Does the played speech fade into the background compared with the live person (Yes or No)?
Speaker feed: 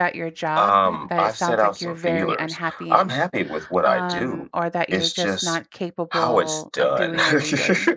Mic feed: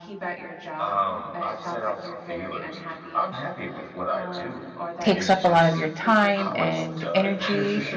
Yes